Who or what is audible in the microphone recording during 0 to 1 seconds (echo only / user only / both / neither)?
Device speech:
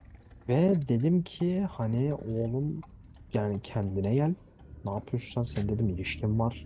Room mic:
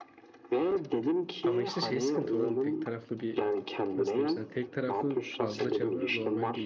echo only